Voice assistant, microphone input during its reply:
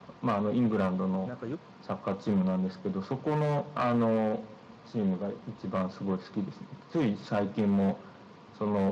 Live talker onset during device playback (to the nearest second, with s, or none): 1 s